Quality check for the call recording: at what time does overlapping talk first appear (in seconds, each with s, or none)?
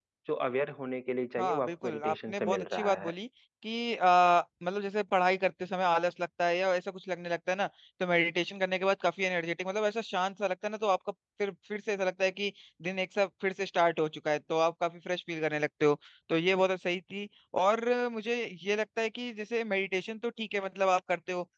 1.4 s